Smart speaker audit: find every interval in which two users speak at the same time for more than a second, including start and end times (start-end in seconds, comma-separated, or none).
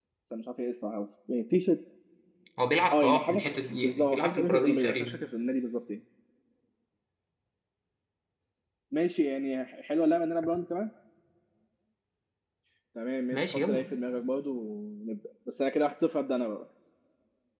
2.9-5.2